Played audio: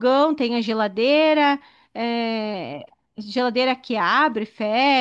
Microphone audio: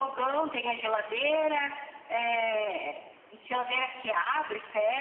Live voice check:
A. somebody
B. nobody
B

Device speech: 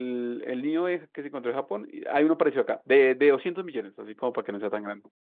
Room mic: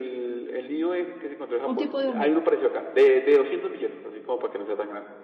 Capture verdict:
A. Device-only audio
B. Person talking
B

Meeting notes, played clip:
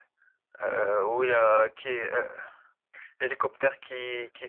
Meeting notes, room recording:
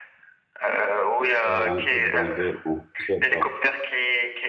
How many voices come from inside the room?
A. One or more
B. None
A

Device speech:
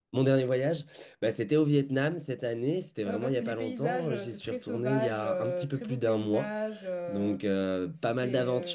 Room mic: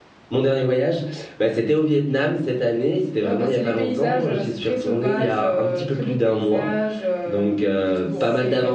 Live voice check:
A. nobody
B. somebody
B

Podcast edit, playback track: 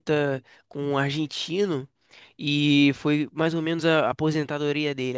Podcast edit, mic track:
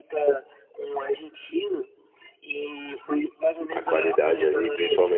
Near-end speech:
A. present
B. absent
A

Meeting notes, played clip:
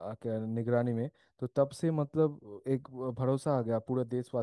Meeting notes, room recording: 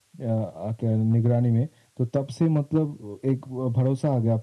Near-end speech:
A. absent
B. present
A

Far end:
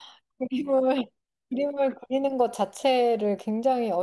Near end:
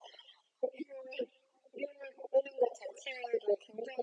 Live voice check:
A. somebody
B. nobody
B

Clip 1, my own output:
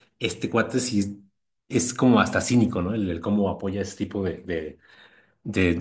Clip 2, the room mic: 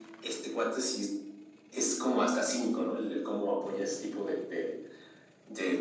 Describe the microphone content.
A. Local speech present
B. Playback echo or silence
B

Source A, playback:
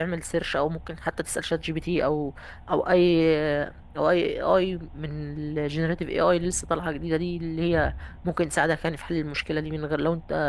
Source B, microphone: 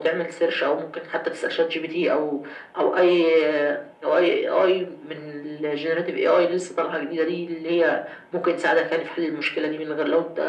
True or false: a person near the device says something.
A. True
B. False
B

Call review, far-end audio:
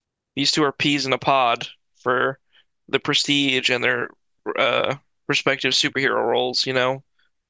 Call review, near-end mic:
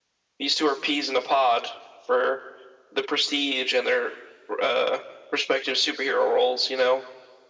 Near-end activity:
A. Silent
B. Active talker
A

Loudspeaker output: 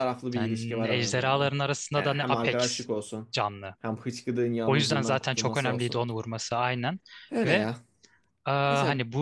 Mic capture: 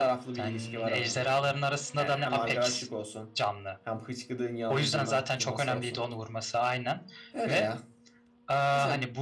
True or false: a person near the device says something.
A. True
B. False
B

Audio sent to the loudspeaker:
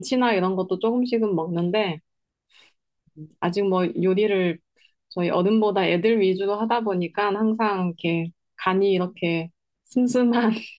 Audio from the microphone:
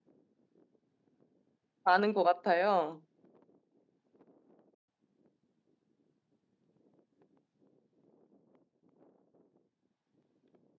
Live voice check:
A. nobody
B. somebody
B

